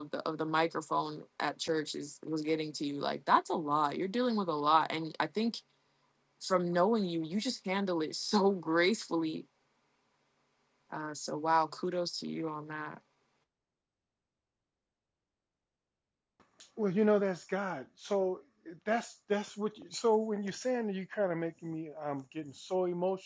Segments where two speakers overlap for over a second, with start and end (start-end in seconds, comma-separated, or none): none